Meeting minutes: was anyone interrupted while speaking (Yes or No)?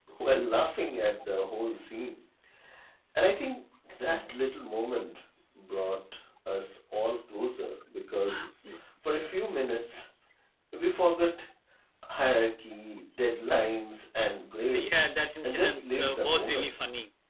Yes